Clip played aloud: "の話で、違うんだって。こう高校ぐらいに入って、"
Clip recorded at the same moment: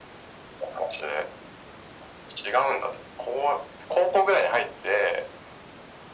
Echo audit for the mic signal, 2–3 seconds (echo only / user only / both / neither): echo only